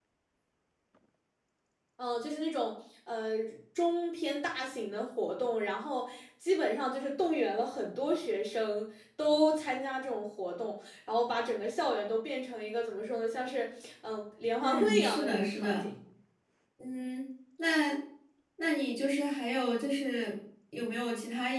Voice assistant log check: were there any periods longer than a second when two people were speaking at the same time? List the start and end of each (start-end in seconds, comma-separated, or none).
14.6-15.9